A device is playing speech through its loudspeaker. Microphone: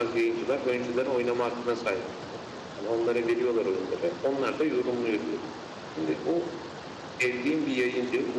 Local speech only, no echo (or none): none